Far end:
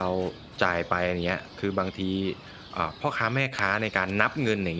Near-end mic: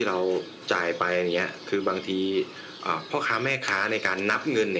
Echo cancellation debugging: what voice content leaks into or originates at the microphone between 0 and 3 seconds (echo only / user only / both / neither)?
echo only